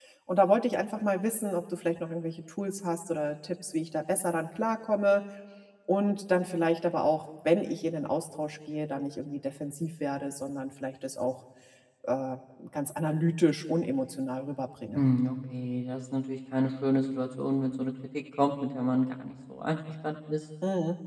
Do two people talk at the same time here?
No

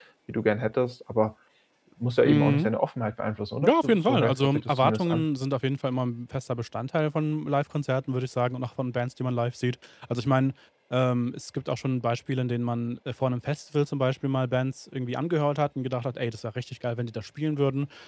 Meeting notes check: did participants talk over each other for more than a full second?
Yes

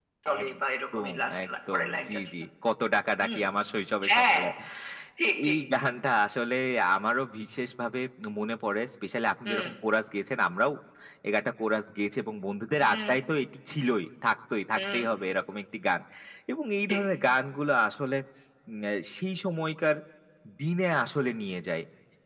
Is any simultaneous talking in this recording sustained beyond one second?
Yes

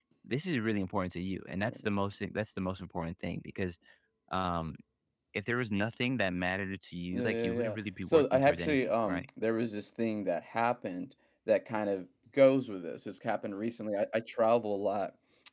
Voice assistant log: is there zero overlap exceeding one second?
No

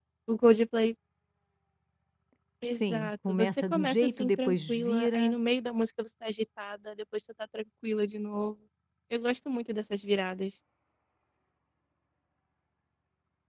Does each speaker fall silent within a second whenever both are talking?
No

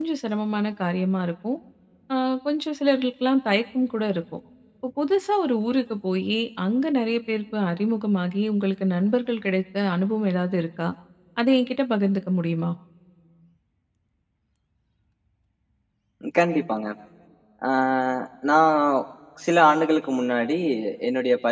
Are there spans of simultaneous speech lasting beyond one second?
No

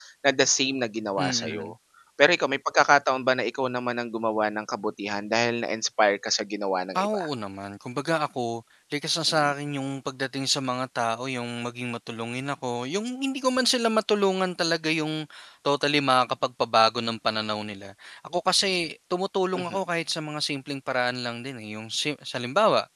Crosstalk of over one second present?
No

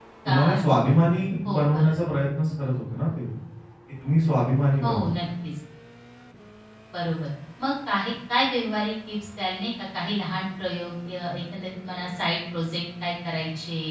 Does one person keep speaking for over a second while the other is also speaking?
No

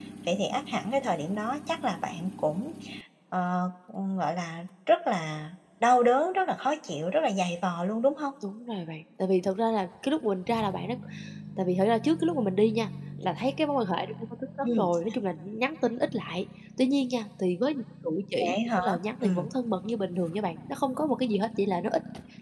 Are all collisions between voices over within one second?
Yes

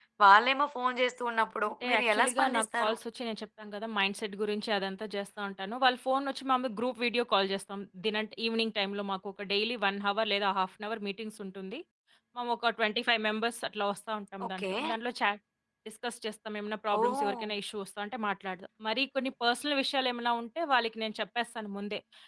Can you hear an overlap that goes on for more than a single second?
Yes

